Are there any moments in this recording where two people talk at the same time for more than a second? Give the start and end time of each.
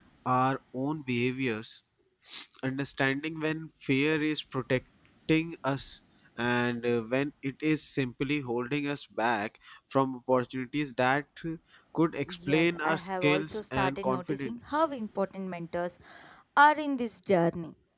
12.5-14.8

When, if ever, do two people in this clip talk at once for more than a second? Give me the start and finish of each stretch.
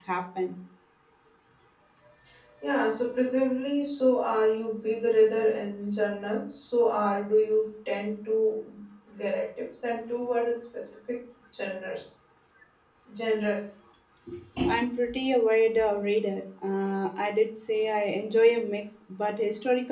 none

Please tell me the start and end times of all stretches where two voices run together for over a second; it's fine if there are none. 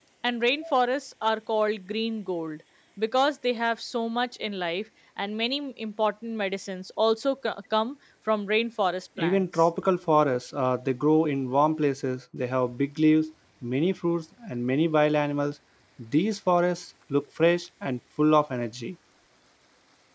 none

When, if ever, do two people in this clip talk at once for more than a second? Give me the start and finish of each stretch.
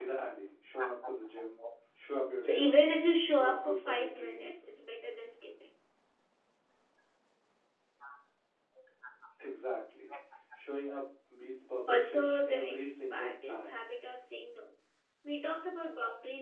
3.3-4.6, 11.9-13.8

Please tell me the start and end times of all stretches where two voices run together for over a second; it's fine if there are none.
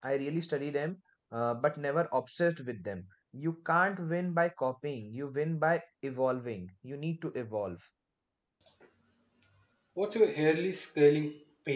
none

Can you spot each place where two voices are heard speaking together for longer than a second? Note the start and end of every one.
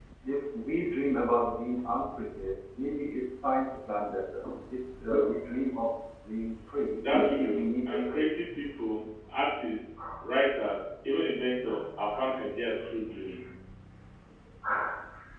7.0-8.3

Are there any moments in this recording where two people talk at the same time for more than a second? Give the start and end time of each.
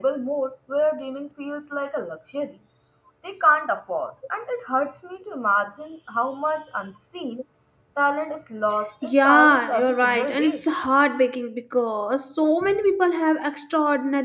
9.0-10.6

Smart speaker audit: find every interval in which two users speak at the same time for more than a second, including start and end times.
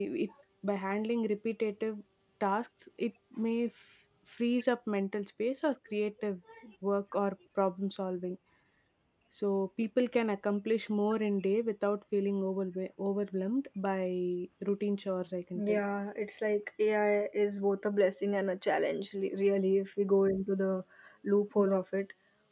none

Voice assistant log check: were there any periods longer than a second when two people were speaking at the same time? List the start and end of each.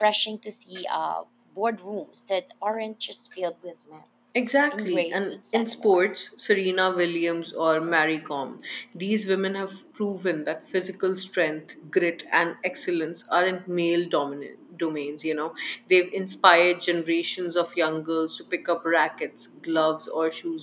4.7-6.0

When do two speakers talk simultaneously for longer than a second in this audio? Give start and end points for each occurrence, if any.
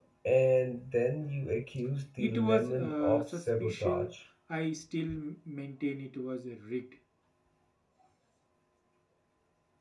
2.2-4.1

